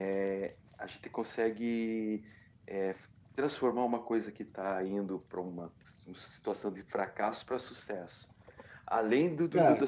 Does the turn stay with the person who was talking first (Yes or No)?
No